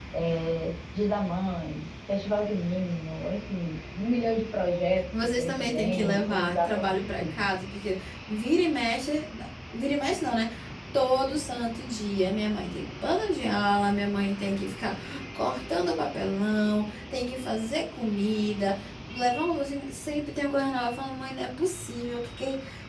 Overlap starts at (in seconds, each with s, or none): 5.4 s